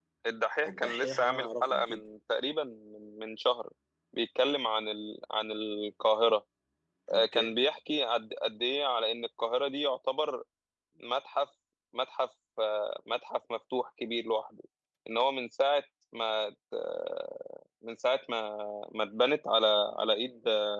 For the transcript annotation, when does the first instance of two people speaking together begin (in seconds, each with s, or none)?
0.7 s